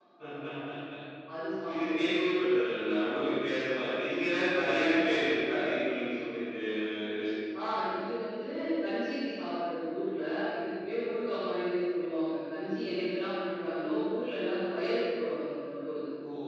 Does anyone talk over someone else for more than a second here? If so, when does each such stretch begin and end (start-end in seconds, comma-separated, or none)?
none